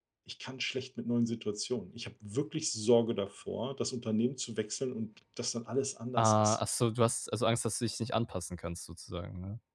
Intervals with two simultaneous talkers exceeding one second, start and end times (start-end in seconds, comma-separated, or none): none